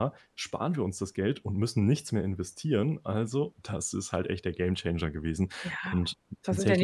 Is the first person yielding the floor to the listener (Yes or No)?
Yes